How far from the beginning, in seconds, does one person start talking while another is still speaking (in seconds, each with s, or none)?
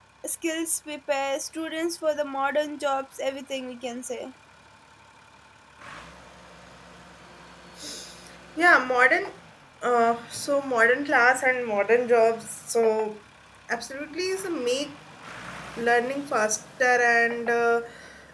none